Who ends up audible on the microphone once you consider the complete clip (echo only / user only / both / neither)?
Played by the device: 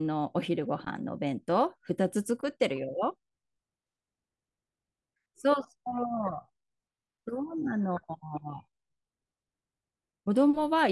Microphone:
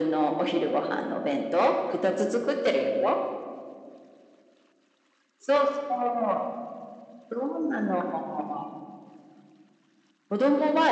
echo only